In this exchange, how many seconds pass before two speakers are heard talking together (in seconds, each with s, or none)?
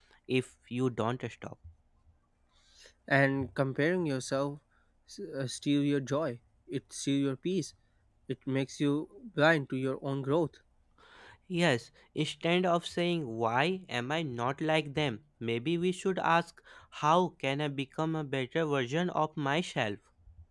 none